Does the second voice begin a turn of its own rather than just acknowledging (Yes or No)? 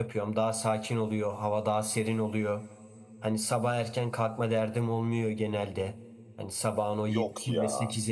No